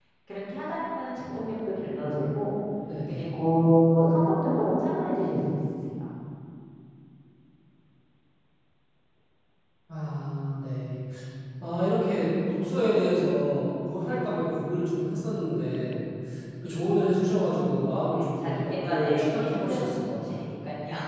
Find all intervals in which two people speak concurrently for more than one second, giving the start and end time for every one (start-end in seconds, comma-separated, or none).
18.1-20.4